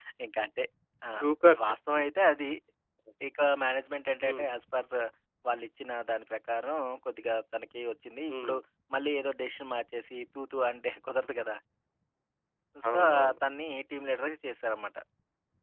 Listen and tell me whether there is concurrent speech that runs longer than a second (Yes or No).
No